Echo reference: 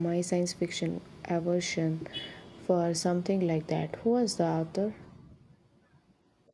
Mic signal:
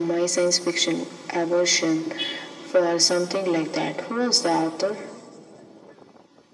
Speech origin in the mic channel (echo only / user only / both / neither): echo only